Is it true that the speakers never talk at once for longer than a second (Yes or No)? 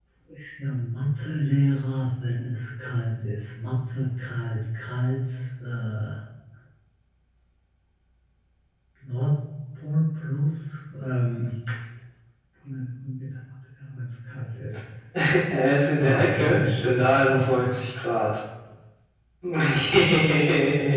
No